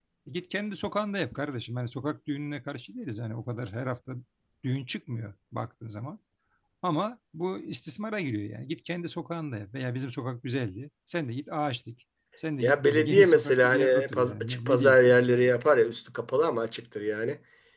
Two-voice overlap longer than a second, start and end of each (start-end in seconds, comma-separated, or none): 12.6-15.0